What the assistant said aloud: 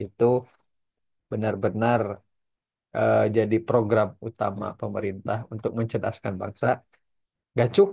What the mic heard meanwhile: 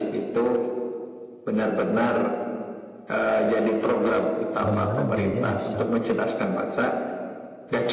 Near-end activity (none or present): present